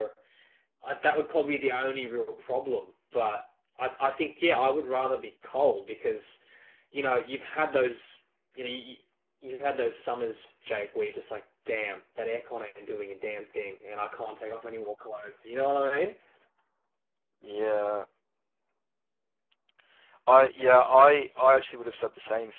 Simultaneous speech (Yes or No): No